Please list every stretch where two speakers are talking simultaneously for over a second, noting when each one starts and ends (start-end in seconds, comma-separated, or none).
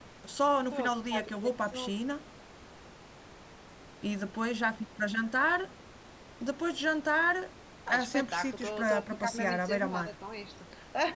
0.7-1.9, 7.9-10.1